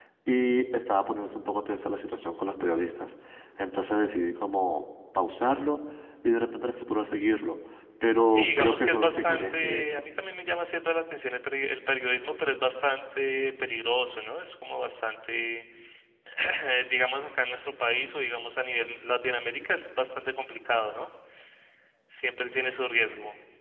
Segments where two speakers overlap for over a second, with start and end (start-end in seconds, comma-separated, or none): 8.2-10.0